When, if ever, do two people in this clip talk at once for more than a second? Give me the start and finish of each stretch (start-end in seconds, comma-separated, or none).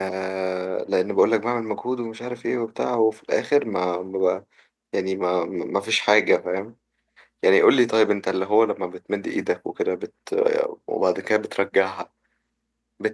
none